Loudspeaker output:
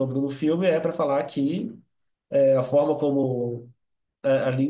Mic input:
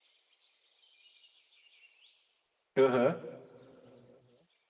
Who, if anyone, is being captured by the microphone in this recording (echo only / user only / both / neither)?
user only